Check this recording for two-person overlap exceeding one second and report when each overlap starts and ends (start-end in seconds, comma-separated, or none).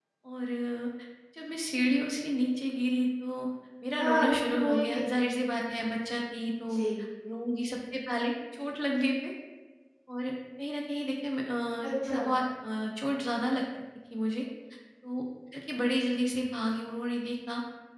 4.0-5.2